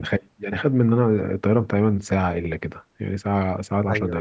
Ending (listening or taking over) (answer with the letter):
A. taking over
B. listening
A